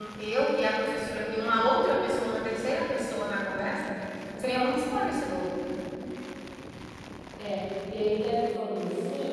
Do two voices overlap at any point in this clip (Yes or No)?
No